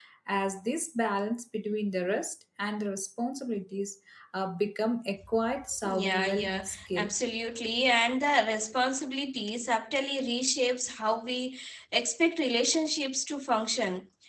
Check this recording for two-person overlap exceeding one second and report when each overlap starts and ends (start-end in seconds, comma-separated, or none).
5.8-7.1